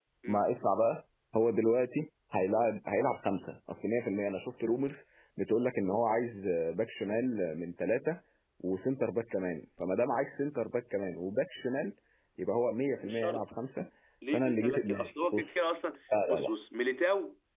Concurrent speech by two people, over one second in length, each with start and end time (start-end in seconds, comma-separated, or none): 14.3-15.6